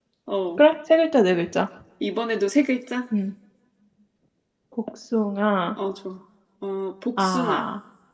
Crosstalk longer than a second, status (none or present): none